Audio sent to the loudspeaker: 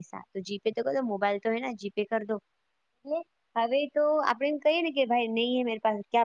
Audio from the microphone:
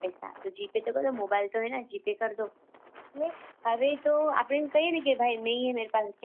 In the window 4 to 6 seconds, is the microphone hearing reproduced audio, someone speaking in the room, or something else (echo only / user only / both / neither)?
echo only